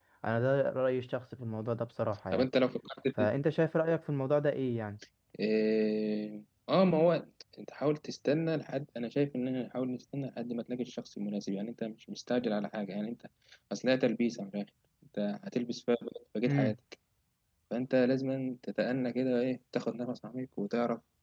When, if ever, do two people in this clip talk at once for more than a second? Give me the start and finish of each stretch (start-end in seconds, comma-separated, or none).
none